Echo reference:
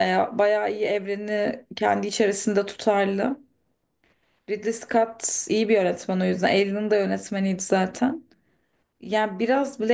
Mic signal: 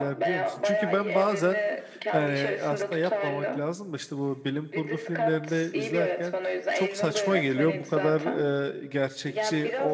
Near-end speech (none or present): present